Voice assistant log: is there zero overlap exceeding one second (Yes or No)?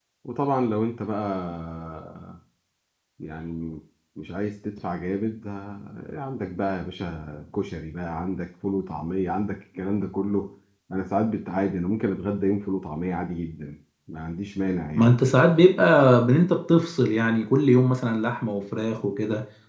Yes